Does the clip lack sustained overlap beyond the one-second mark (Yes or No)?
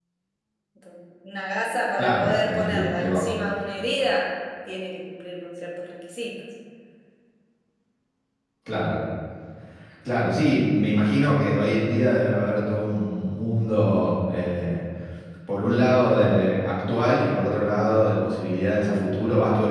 No